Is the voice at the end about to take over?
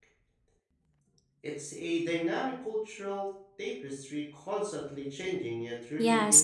Yes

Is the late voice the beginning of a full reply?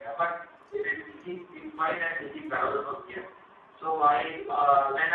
No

